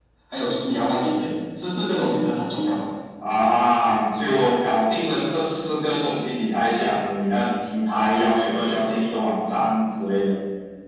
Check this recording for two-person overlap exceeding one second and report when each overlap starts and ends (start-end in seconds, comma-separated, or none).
none